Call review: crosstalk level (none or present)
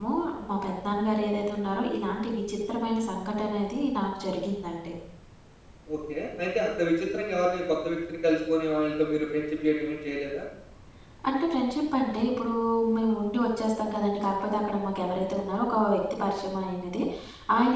none